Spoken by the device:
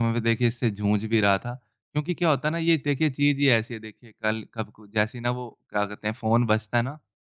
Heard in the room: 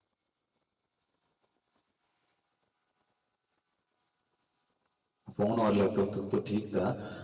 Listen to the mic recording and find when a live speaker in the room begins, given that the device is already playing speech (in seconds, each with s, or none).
5.3 s